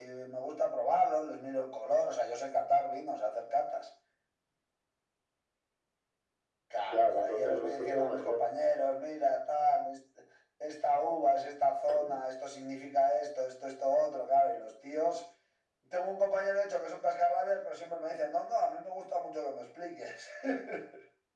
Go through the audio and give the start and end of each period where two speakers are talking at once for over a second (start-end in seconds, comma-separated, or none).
6.9-8.4